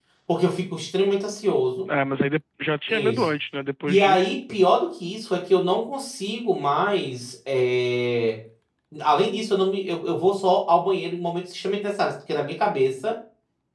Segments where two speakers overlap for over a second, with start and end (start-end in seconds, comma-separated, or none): none